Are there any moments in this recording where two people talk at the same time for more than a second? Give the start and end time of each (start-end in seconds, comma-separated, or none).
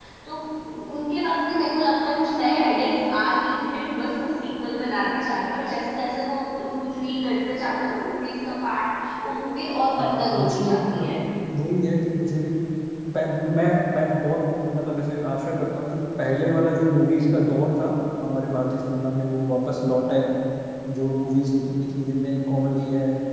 10.0-11.2